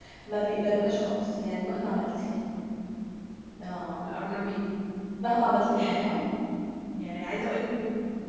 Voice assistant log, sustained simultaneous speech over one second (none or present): none